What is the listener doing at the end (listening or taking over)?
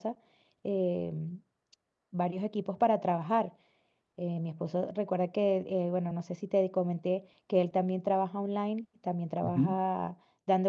listening